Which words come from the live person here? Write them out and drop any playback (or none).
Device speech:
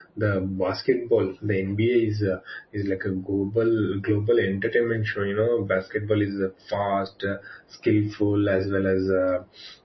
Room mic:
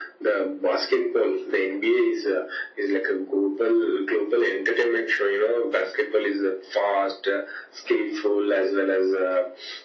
none